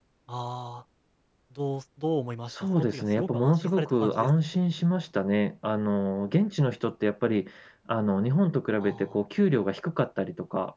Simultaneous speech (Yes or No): Yes